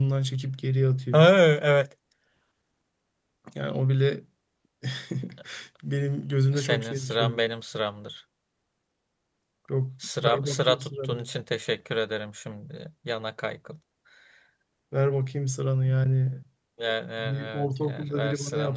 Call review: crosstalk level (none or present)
present